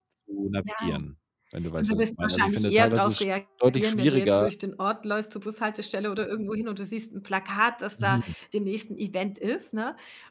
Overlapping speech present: Yes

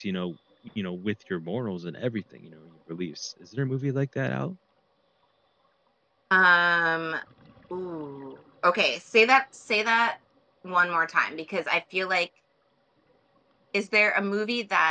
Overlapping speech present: No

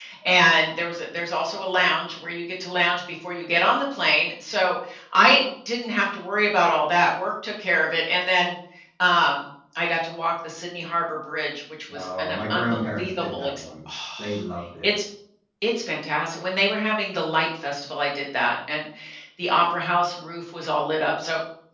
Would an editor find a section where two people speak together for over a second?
Yes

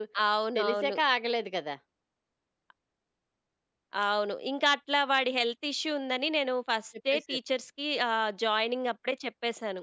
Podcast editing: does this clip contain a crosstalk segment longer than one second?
No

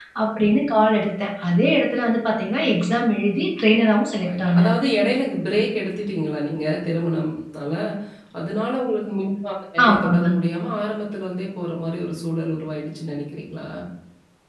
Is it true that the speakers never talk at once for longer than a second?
Yes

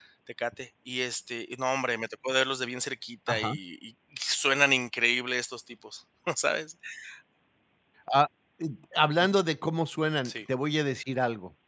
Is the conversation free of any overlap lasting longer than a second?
Yes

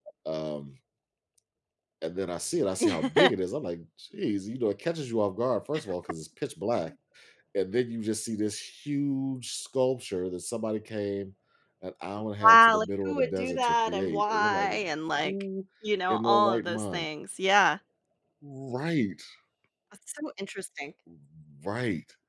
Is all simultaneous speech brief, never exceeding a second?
No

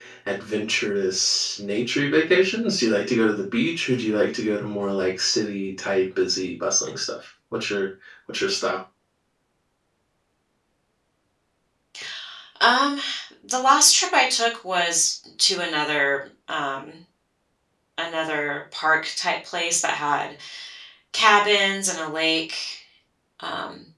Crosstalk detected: No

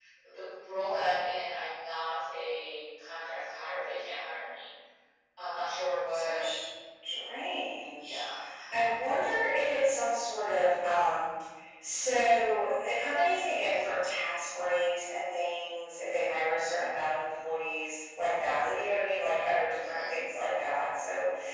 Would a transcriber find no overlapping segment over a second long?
Yes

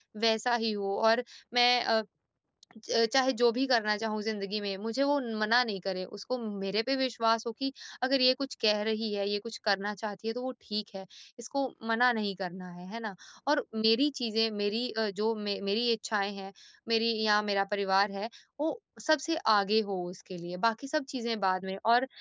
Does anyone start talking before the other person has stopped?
No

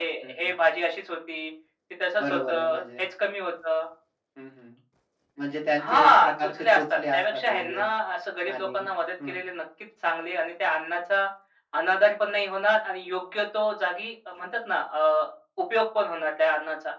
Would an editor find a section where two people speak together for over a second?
Yes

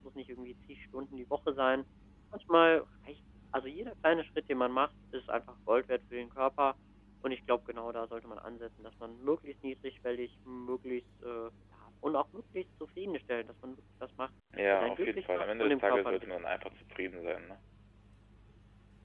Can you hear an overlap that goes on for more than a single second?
Yes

